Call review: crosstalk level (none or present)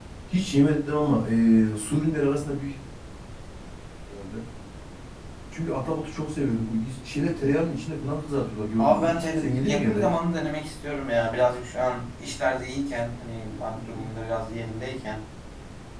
present